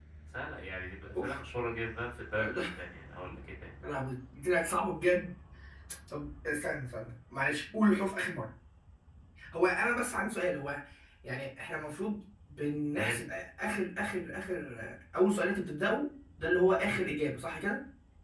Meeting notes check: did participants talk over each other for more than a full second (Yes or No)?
No